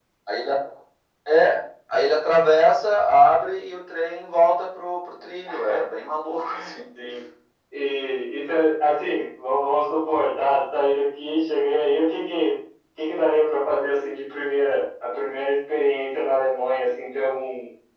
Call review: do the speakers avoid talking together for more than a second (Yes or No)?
Yes